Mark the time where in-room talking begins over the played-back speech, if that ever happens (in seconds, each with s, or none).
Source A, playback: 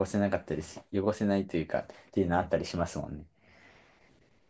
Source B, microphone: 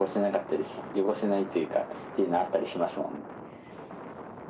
none